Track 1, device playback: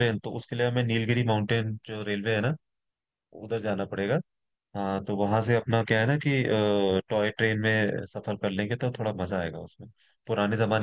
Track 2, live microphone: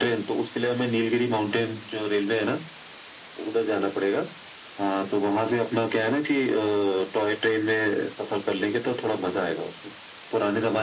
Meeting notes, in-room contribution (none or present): none